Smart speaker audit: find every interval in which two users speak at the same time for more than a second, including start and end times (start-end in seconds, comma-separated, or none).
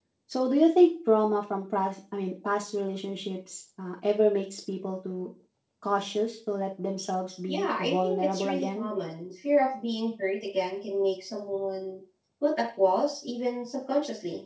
7.5-8.9